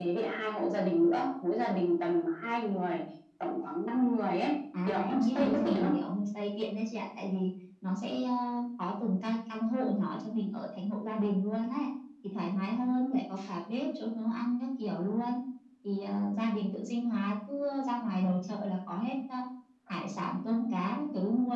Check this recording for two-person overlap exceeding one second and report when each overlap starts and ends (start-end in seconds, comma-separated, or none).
4.9-6.1